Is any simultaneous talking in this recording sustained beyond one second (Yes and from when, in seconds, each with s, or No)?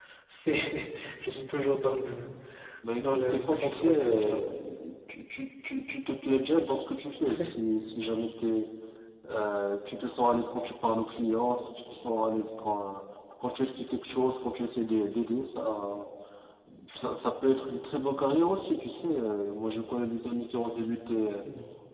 Yes, from 3.0 s